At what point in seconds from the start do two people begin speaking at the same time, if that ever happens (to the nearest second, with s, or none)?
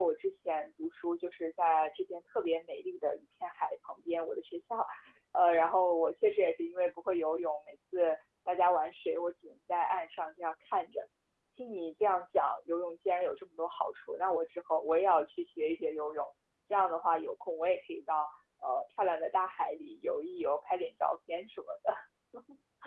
none